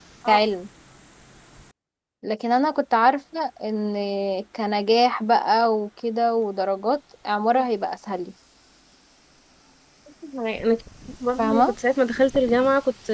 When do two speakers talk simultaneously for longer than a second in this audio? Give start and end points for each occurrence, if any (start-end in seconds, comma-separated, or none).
none